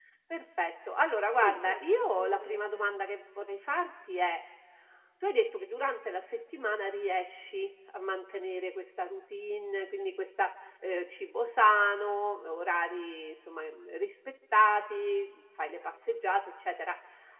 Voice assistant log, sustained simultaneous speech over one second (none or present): present